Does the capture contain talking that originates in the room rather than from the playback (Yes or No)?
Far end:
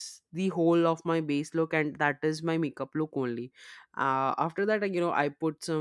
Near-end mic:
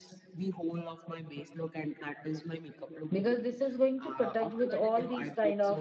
Yes